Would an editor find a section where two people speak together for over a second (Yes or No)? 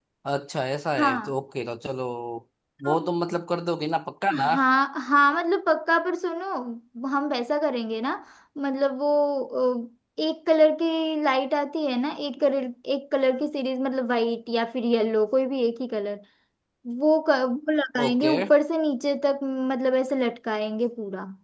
No